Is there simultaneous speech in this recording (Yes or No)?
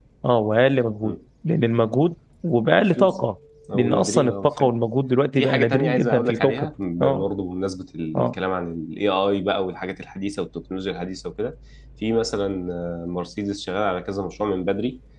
Yes